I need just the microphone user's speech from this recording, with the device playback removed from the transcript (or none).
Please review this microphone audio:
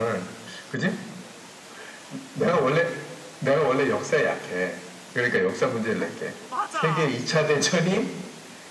어, 맞아!